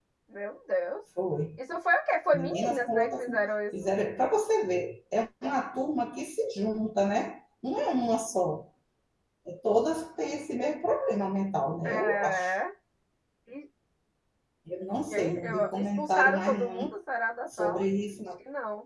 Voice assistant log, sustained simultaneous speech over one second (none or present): present